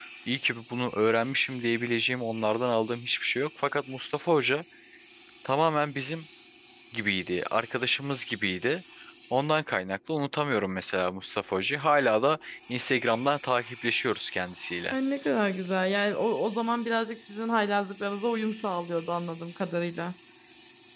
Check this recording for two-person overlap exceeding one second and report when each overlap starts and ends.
none

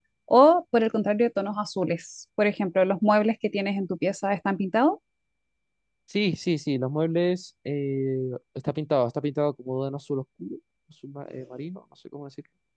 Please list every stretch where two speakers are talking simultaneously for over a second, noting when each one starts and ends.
none

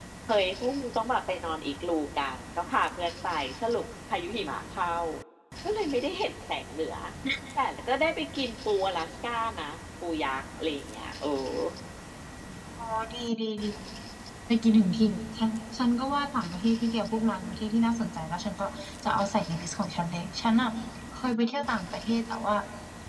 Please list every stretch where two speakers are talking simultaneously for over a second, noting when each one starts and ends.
none

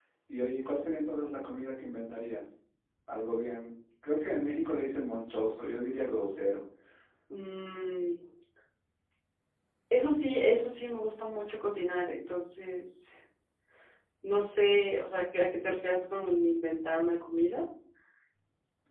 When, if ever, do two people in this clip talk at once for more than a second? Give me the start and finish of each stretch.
none

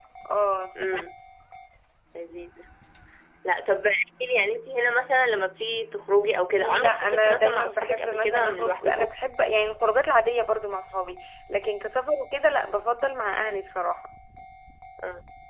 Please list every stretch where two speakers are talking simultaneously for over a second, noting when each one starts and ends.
6.5-9.1

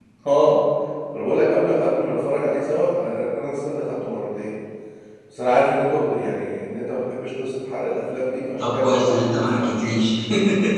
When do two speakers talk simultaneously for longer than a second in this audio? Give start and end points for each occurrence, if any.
8.6-10.0

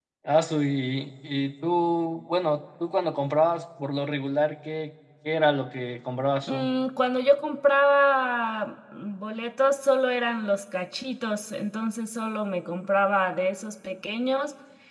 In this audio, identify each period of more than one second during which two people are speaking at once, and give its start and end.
none

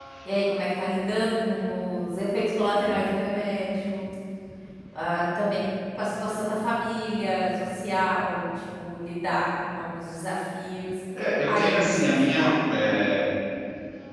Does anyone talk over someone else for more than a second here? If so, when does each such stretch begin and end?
11.5-12.7

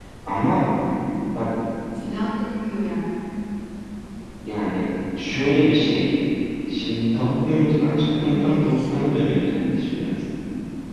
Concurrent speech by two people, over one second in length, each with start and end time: 8.3-9.7

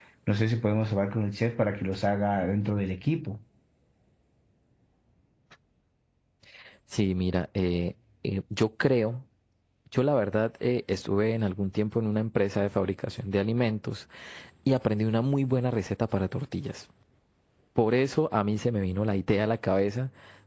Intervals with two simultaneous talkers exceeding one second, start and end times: none

